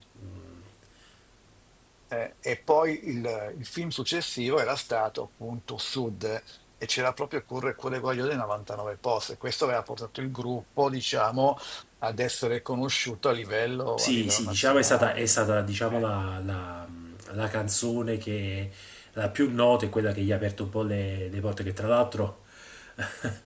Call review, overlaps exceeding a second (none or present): present